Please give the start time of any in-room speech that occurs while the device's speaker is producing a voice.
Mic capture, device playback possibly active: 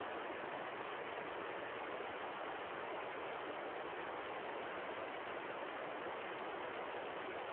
none

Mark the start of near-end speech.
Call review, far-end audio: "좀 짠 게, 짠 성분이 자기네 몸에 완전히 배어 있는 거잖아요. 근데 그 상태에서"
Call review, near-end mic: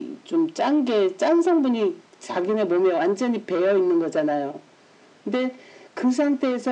none

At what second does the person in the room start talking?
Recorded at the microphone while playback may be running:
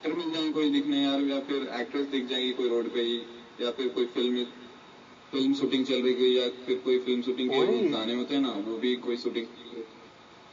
7.5 s

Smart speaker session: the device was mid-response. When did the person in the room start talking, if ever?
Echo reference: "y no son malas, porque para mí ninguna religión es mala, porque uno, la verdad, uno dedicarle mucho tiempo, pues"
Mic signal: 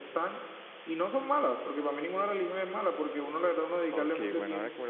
3.9 s

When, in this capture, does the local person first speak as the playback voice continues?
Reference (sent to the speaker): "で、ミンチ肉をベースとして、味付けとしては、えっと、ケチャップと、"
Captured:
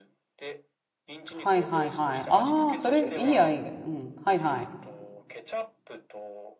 1.3 s

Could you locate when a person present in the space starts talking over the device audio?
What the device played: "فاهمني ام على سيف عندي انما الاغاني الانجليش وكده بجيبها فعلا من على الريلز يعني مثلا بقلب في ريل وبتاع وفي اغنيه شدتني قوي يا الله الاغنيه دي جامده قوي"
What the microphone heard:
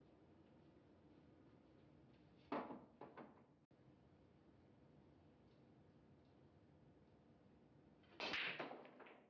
none

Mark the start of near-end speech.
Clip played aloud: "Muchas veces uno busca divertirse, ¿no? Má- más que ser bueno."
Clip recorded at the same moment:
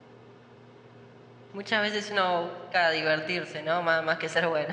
none

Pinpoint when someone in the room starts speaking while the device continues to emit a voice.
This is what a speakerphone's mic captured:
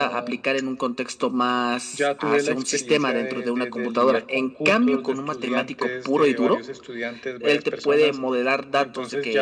none

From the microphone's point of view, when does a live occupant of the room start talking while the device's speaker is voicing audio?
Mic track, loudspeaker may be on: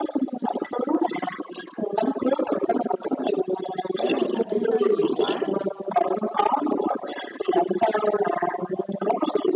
4.0 s

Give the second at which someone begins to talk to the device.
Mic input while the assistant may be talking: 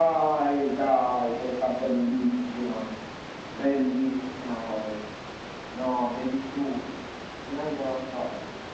none

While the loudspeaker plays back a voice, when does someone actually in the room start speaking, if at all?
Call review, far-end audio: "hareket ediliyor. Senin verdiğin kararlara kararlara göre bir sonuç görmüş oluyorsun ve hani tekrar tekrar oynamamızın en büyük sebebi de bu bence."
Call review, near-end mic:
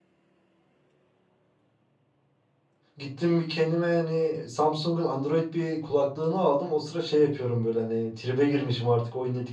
3.0 s

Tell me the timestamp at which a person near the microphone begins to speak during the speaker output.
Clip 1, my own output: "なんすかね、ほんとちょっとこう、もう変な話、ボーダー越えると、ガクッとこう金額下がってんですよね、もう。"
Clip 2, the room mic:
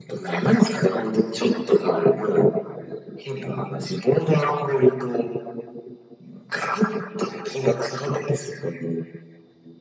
none

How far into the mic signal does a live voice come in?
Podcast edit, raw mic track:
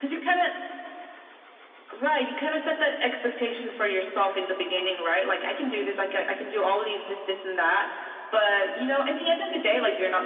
none

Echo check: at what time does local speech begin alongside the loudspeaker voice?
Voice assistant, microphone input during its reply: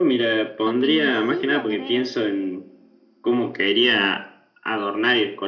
0.7 s

